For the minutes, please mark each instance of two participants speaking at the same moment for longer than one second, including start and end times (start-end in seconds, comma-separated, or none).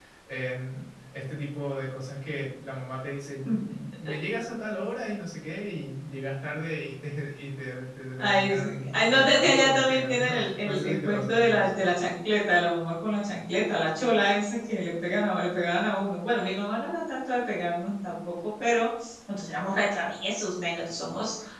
8.2-11.8